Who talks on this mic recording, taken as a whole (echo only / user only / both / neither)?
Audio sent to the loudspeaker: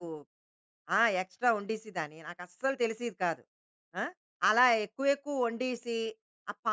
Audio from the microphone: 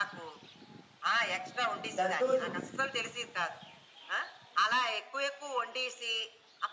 both